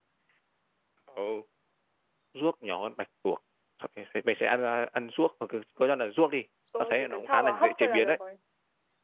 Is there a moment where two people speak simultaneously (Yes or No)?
Yes